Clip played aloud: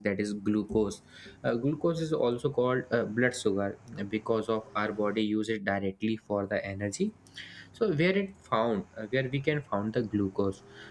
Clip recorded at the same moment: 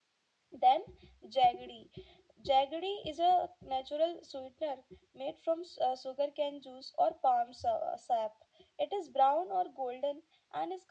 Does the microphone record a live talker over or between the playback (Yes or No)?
Yes